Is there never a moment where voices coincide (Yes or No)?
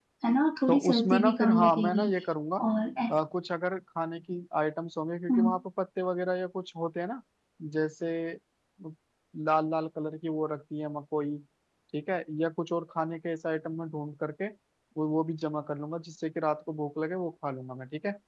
No